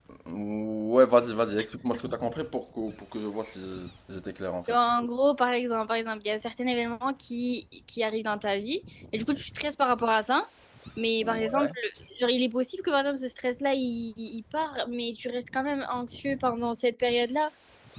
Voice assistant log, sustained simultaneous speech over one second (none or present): none